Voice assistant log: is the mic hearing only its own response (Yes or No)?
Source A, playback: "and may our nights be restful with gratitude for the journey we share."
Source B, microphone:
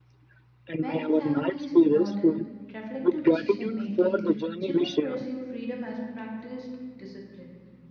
No